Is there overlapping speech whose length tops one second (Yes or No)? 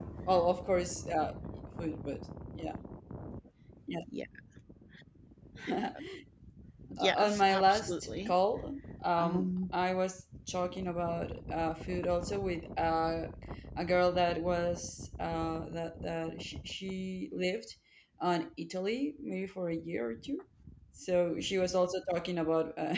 Yes